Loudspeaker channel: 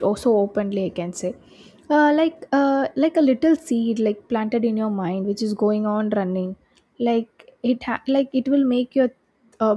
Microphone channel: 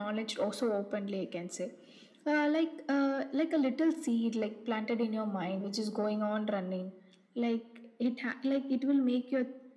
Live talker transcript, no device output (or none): none